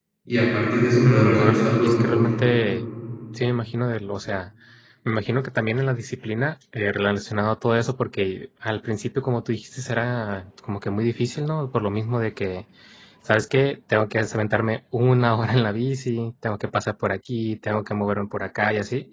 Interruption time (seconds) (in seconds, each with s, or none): 1.0 s